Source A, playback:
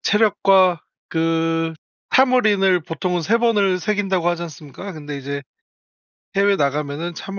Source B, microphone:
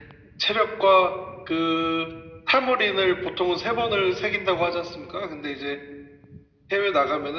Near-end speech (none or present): none